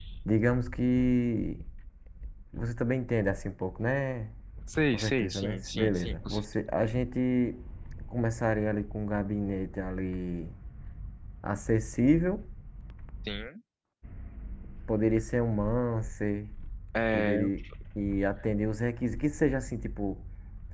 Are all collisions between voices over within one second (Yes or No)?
No